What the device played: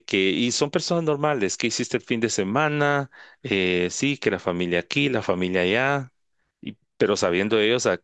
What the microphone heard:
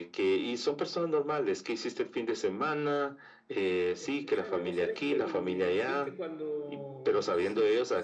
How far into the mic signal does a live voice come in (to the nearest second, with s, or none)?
4 s